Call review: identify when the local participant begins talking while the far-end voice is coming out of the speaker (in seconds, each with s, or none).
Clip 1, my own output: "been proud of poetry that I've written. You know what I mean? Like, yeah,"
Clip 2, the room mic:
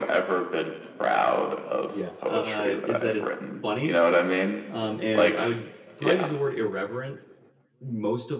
1.9 s